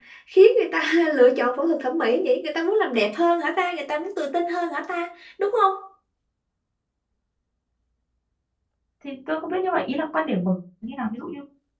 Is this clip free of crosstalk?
Yes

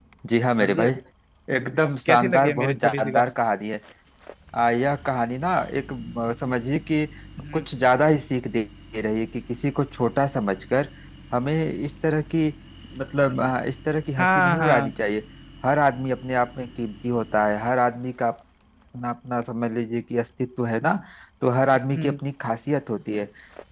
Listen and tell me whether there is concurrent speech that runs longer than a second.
Yes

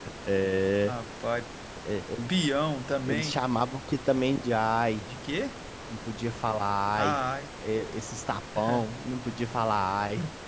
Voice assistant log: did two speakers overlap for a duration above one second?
No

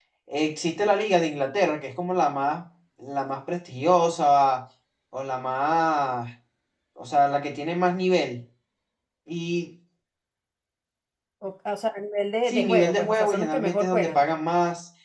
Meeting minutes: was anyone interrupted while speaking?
Yes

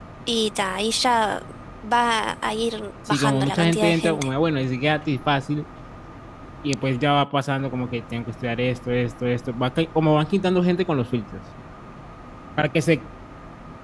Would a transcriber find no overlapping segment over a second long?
No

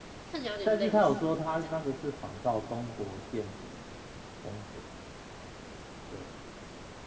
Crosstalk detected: Yes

